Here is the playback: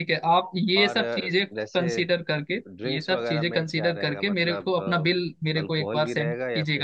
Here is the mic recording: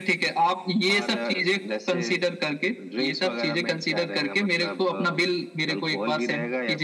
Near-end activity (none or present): none